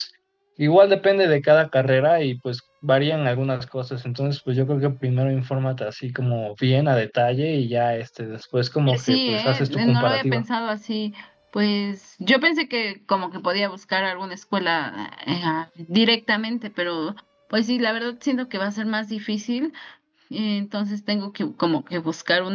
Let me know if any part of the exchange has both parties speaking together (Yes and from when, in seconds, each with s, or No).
Yes, from 8.9 s